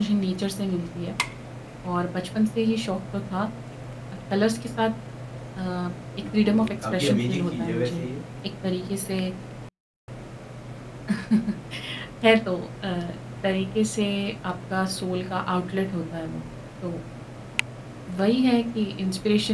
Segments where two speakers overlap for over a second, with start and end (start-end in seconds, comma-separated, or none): 6.4-8.0